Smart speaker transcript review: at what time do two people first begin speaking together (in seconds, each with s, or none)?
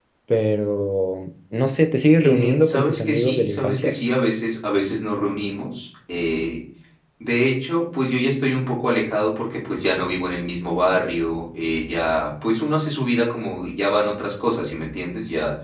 2.2 s